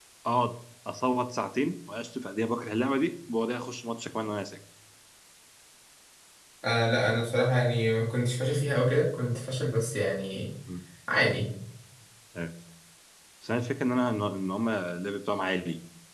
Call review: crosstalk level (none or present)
none